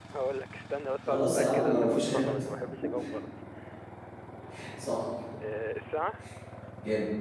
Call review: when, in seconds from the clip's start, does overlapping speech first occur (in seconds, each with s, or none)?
1.0 s